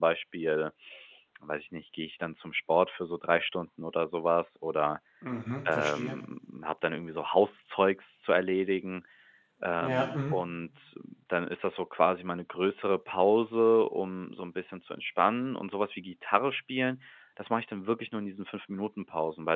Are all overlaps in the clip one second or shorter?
Yes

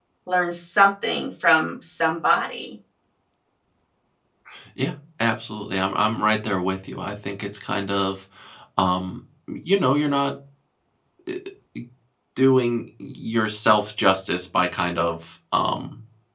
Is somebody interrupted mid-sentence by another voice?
No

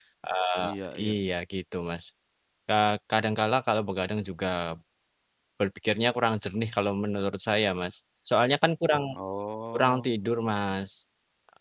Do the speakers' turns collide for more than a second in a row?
No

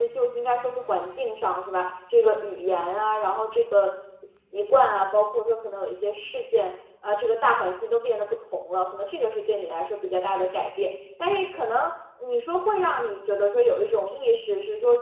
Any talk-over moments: No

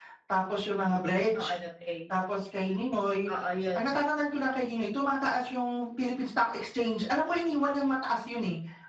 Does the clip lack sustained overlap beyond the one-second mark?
Yes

